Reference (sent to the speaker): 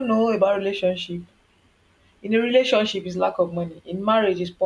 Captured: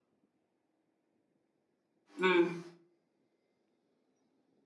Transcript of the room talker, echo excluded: Mm.

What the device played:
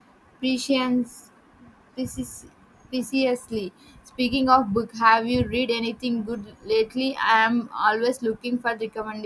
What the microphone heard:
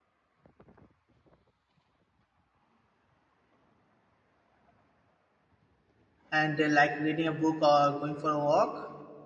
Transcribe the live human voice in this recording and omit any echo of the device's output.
and uh, like reading a book or going for a walk

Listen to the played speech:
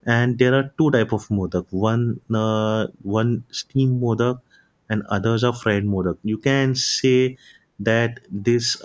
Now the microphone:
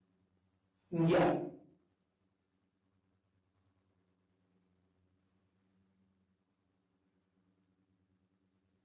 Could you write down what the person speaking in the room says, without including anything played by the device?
yeah,

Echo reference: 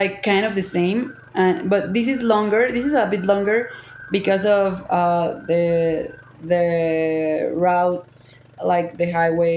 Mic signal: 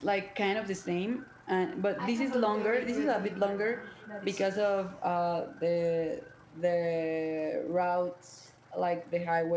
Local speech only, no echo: I have a very good view right now. That is true.

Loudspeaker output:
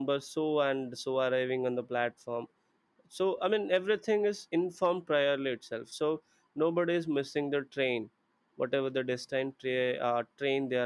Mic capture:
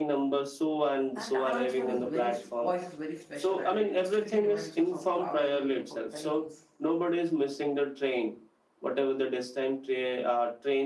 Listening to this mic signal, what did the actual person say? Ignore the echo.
that announcement is very voice is very special, and it instantly reminds us of travel, waiting for trains,

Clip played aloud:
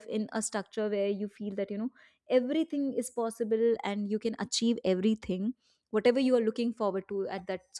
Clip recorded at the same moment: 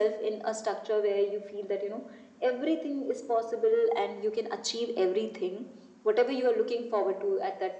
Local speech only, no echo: none

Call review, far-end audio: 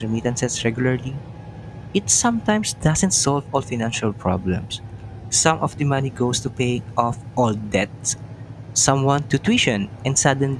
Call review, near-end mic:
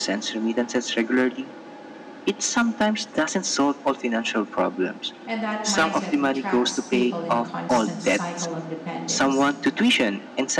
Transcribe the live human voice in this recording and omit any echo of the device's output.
and that mindset traps people in a constant cycle of dependence.

